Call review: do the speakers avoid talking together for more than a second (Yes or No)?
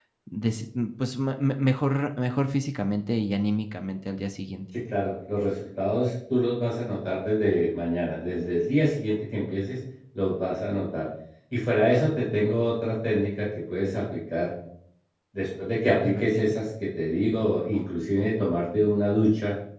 Yes